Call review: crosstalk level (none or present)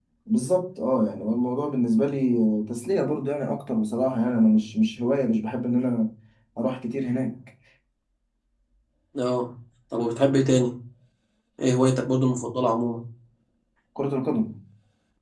none